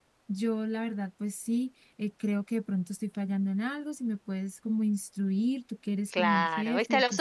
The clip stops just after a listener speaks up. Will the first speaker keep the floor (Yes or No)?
No